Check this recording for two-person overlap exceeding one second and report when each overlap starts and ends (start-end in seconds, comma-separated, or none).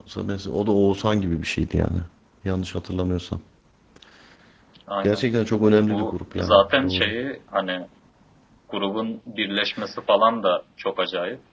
5.9-7.1